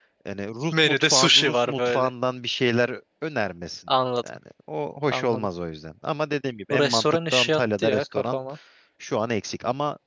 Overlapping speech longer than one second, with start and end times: 0.7-2.1, 6.7-8.4

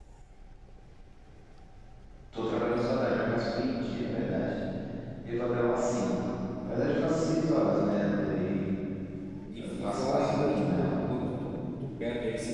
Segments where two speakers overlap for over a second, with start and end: 9.6-10.9

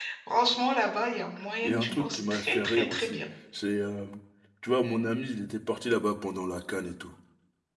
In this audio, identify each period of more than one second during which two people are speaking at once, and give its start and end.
1.6-3.2

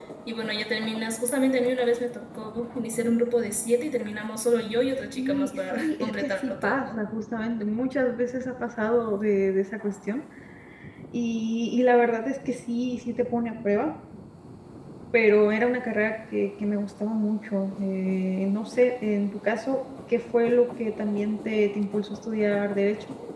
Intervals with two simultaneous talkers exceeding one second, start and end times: 5.2-7.0

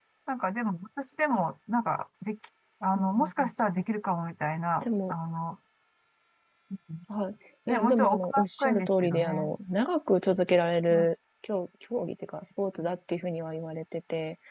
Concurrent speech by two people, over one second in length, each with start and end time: 7.7-9.5

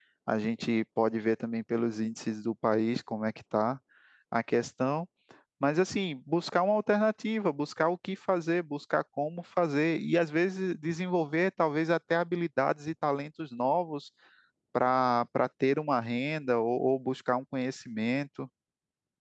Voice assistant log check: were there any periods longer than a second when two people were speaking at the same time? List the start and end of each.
none

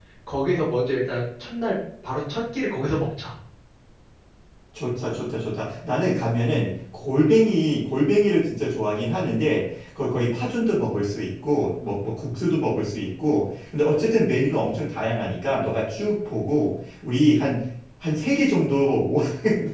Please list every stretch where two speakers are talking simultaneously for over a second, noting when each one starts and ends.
none

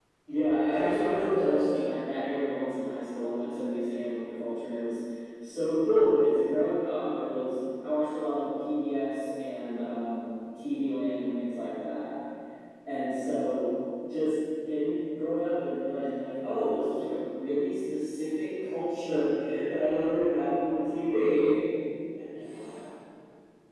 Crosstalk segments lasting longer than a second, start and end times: 0.7-2.0

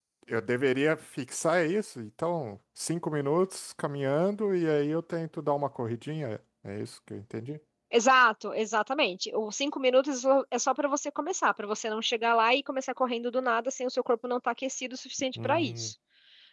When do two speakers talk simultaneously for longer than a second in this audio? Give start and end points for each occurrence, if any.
none

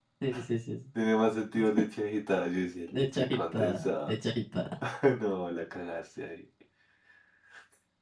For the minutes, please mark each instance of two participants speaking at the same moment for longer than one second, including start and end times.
2.9-4.1

